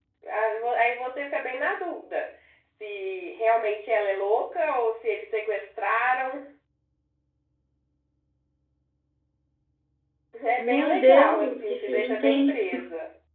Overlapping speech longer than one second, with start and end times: 10.6-12.8

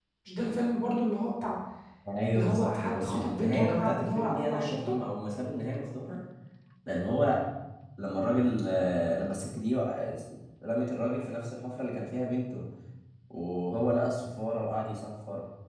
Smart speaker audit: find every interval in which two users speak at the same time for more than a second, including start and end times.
2.3-4.9

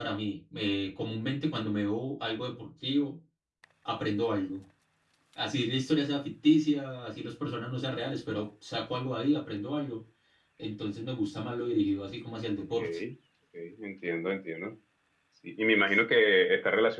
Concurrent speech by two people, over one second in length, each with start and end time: none

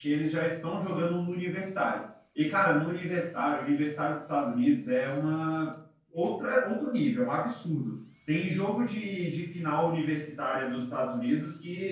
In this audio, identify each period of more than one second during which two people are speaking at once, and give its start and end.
none

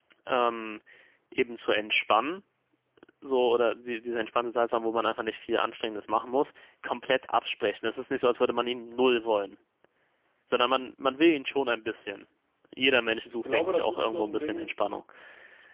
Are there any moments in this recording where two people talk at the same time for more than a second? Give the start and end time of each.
13.2-14.7

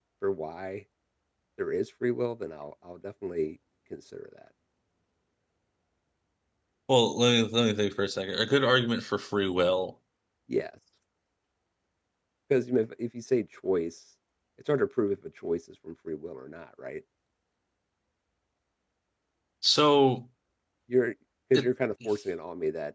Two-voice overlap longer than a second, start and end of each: none

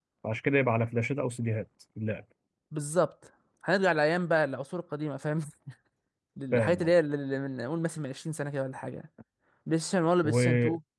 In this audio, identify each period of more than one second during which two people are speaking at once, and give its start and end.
none

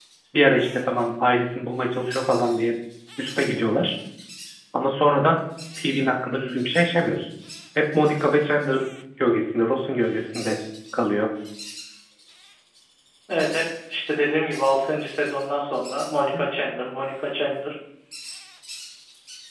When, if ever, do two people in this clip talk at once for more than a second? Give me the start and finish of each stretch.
none

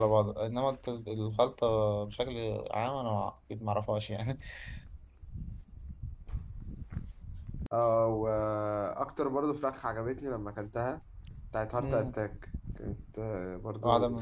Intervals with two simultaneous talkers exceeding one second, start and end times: none

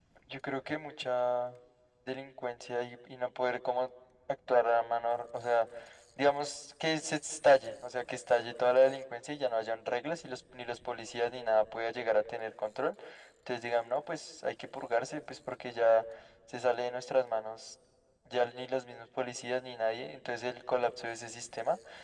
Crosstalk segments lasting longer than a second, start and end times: none

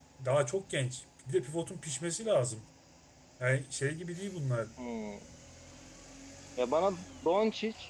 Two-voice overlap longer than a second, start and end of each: none

